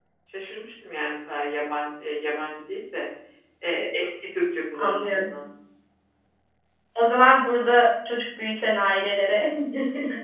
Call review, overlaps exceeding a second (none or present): none